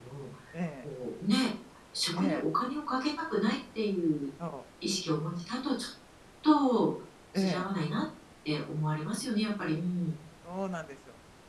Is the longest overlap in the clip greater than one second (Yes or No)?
No